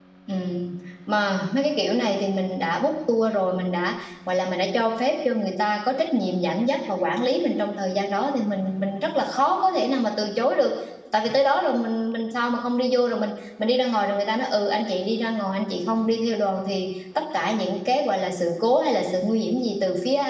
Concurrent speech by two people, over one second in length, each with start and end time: none

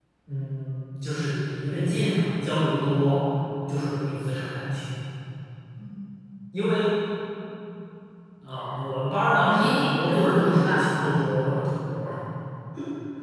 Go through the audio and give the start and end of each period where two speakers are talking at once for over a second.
9.4-10.9

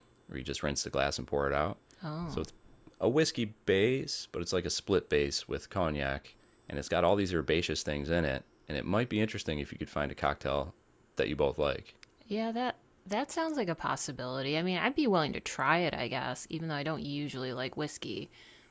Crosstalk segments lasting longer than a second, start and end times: none

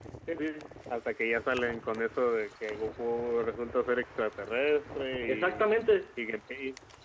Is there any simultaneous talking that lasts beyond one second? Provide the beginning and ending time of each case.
none

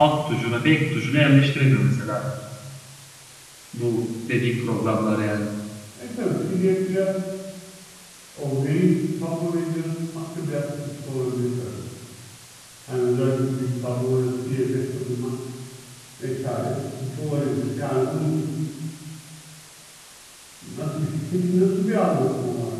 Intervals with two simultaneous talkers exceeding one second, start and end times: none

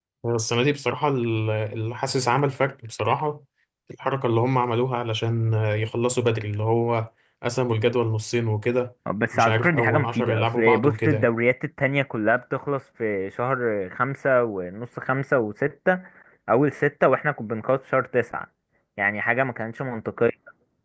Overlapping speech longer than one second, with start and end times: 9.3-11.3

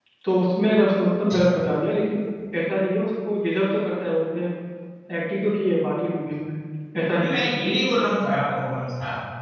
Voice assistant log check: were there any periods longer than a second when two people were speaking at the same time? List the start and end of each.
none

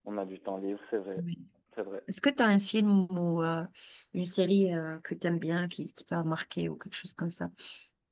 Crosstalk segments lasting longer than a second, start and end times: none

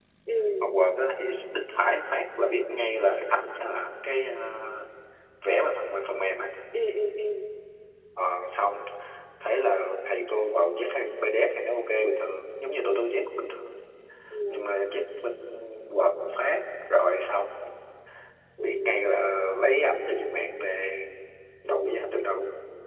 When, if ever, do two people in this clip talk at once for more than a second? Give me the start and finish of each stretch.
none

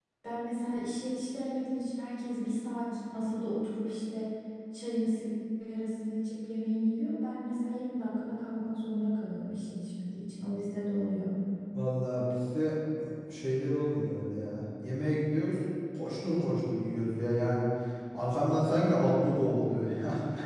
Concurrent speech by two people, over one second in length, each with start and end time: none

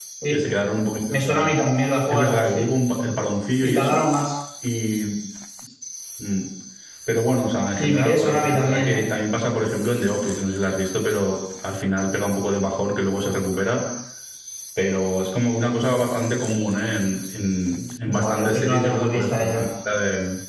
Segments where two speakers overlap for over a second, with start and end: 7.8-9.1, 18.0-19.6

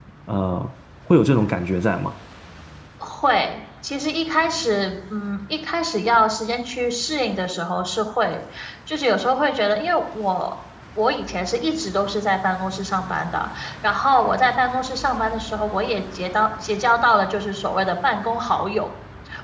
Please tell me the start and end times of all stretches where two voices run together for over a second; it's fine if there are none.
none

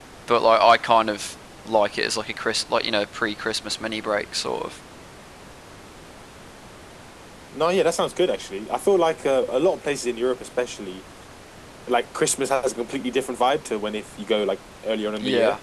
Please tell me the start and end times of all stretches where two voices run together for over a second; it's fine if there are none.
none

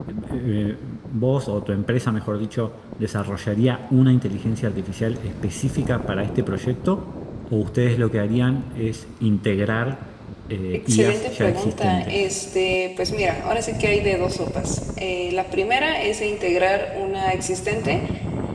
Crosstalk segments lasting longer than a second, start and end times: 10.7-12.2

